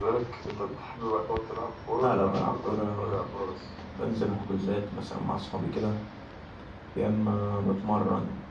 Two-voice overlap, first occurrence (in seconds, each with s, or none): 2.0 s